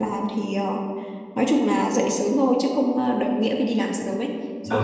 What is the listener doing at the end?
listening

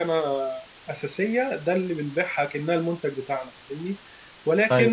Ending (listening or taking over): listening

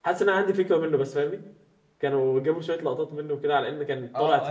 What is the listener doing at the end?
taking over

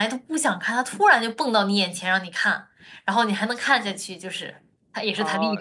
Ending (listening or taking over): taking over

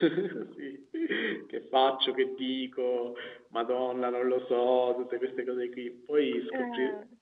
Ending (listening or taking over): listening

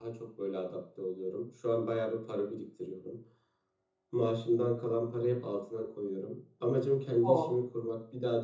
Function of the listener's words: listening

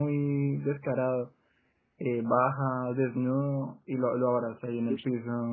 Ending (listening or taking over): listening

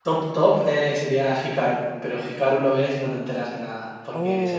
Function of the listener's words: taking over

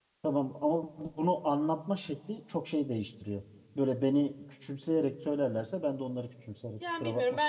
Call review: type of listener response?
taking over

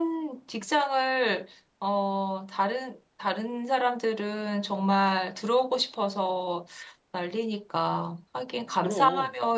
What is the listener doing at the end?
listening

